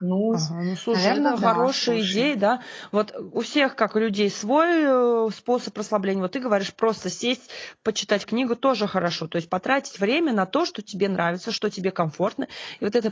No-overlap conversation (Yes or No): No